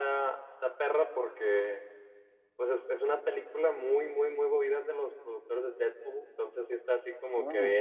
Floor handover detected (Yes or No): No